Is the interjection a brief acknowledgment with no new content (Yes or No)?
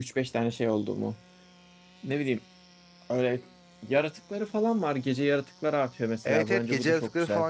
No